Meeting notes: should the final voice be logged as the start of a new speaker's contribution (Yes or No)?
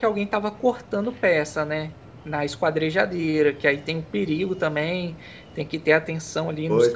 Yes